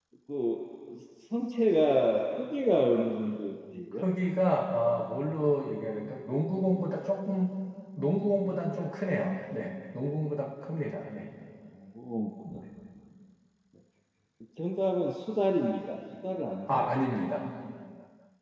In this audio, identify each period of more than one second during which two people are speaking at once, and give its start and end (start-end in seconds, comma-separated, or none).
none